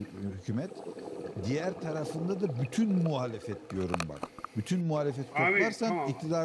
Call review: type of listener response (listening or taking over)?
listening